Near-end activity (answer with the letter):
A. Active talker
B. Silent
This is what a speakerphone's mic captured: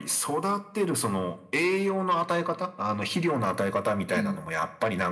A